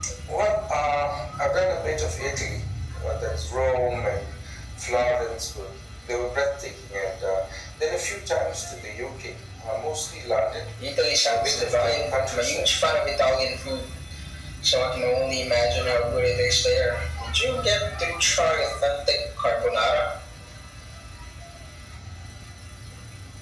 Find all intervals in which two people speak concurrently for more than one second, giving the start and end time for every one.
11.2-12.7

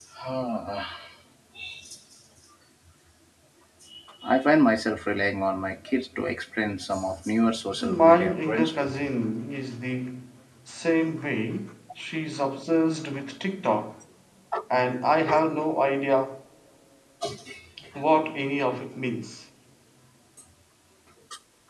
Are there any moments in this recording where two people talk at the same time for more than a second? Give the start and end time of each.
7.8-9.1

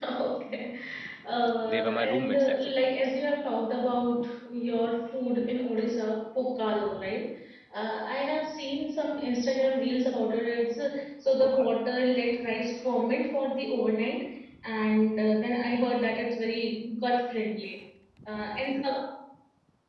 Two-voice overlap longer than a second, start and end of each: 1.7-2.9

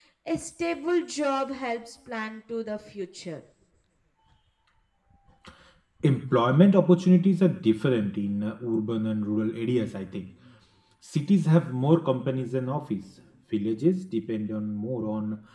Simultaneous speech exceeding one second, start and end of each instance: none

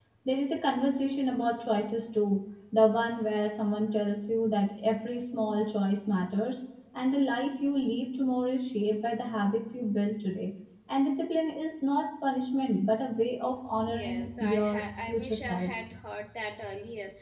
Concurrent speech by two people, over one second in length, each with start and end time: 13.9-15.7

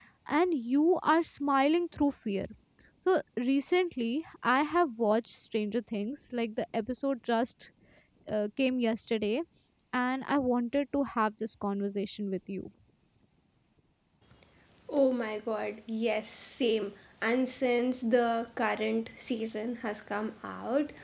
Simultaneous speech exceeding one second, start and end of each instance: none

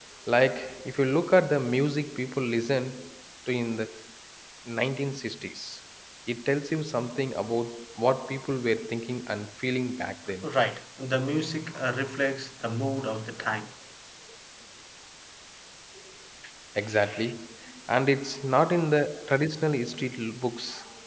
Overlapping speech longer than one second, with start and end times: none

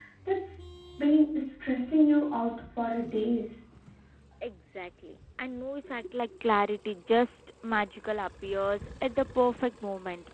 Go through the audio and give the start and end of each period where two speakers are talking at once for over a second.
none

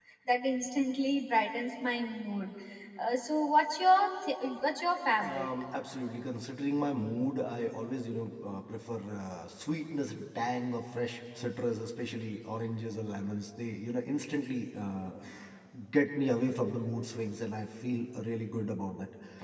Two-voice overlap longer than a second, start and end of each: none

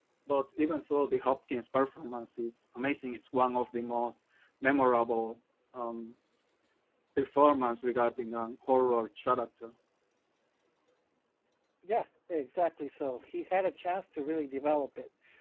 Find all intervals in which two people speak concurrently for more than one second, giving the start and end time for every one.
none

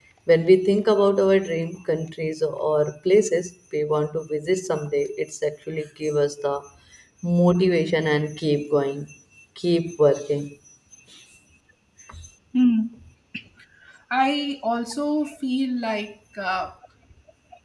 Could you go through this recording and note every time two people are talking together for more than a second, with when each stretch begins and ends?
none

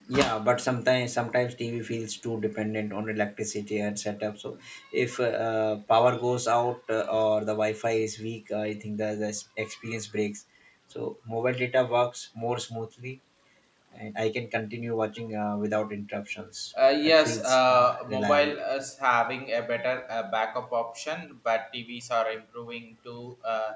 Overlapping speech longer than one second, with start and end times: 17.0-18.6

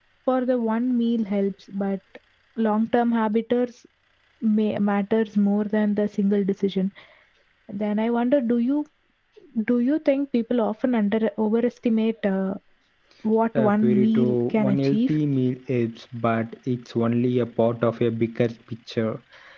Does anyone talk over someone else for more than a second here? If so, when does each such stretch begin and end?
13.6-15.1

